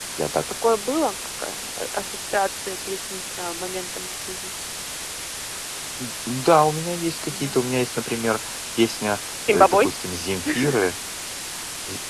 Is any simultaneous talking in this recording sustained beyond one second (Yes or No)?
No